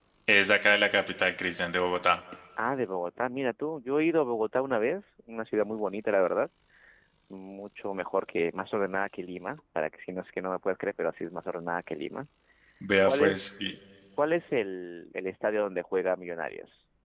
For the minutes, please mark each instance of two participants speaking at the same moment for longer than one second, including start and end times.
none

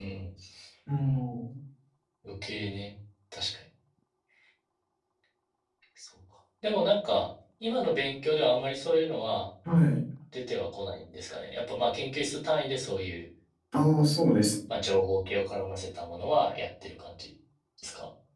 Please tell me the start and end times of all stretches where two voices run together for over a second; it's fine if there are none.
none

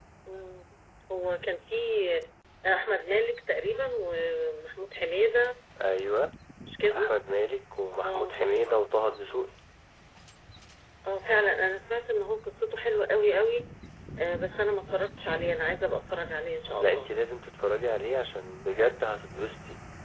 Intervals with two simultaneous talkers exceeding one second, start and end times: none

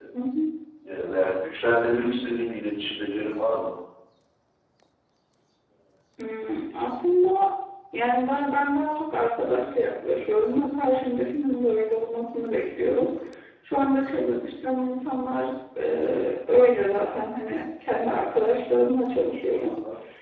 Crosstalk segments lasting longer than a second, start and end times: none

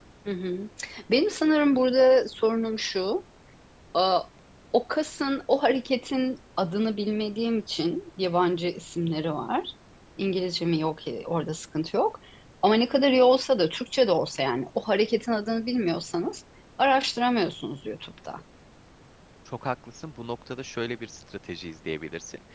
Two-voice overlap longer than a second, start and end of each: none

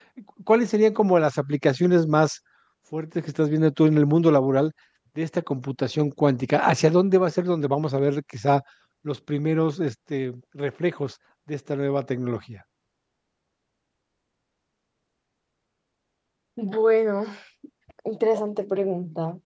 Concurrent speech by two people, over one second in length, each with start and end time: none

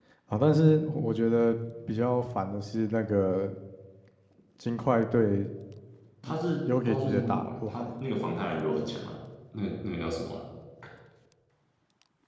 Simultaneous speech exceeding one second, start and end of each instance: 6.7-7.9

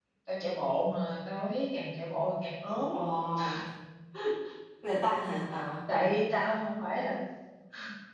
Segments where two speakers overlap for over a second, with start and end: none

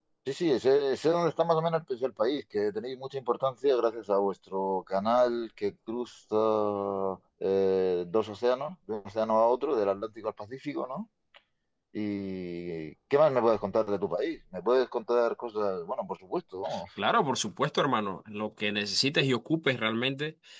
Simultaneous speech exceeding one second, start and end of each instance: none

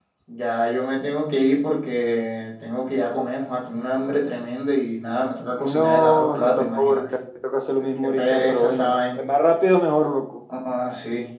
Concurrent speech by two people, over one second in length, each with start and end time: 5.6-7.0, 7.8-9.2

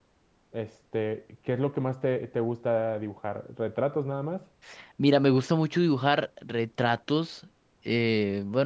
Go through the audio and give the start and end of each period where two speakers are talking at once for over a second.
none

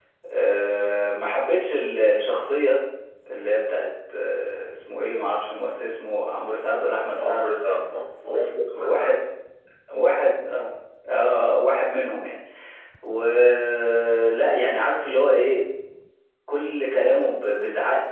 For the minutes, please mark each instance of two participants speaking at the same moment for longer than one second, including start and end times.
none

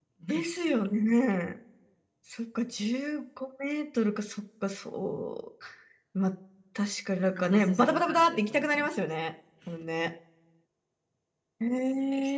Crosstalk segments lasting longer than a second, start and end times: 7.4-9.1

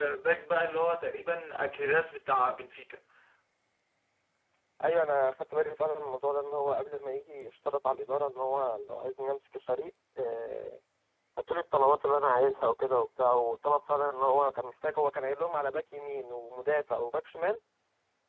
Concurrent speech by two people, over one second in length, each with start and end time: none

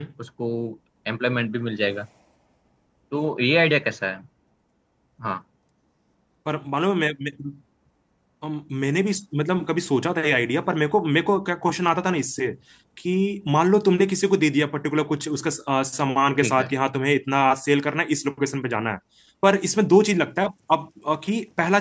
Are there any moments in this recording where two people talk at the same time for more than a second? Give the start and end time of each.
none

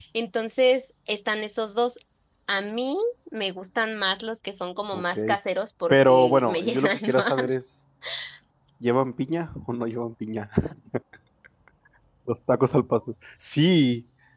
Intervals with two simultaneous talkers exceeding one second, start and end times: 5.9-7.5

